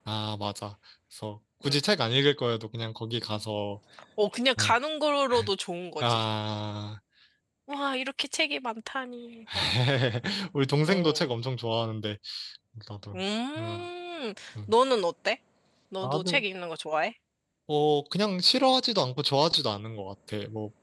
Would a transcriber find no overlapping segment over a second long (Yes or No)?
Yes